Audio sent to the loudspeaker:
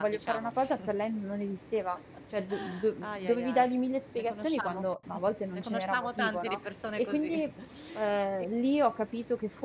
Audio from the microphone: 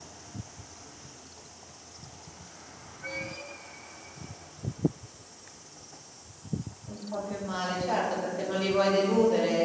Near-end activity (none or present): present